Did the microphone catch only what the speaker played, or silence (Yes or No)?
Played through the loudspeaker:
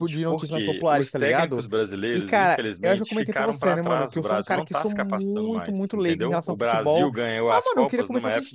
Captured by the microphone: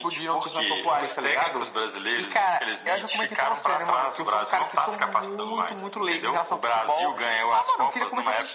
Yes